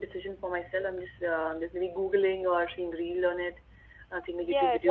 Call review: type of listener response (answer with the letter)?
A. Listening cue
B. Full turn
B